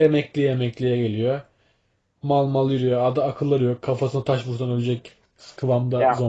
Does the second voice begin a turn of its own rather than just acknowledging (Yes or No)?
Yes